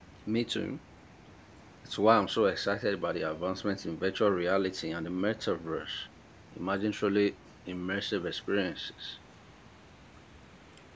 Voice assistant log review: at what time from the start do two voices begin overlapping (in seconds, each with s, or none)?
none